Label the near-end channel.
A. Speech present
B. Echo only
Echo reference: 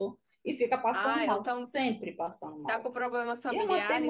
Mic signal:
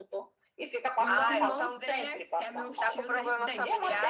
A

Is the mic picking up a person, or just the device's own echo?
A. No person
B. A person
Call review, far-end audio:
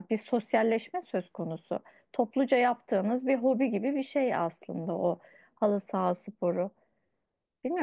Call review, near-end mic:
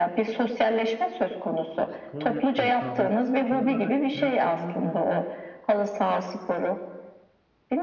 B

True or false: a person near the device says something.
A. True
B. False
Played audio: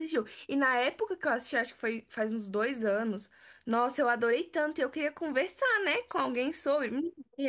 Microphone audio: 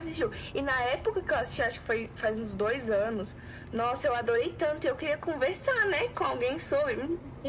B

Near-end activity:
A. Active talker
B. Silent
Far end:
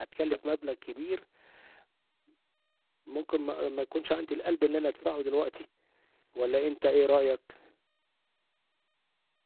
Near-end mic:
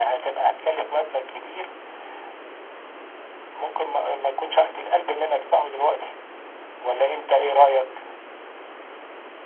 B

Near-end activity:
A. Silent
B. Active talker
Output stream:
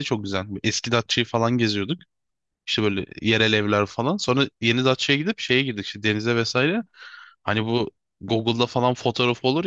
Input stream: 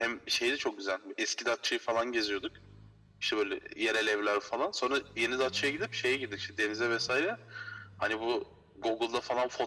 A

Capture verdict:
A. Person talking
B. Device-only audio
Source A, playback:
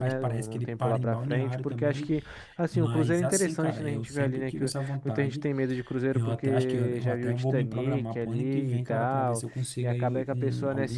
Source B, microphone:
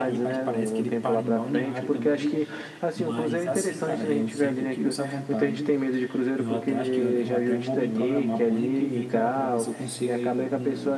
B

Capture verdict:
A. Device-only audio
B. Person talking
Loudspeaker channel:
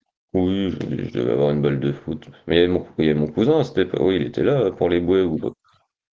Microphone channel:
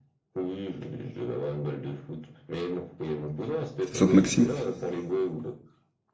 B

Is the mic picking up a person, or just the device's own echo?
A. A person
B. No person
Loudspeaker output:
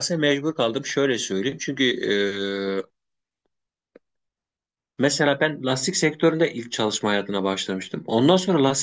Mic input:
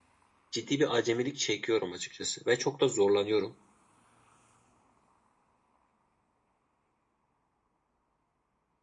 A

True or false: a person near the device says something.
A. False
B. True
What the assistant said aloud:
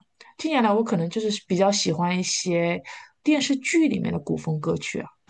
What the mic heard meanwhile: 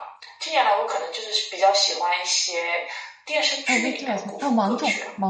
B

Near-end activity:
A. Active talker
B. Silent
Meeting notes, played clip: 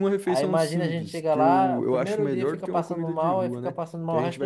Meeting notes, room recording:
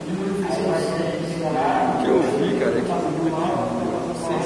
A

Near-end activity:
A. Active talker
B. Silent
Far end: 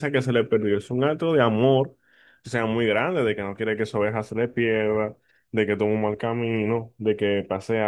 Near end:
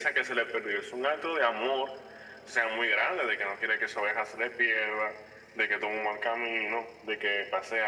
B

